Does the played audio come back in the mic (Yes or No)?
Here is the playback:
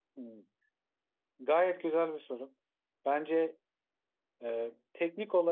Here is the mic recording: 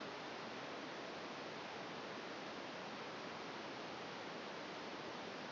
No